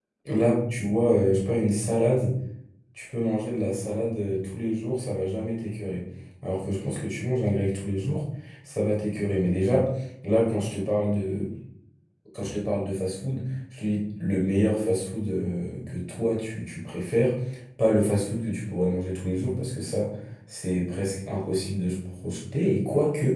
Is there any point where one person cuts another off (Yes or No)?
No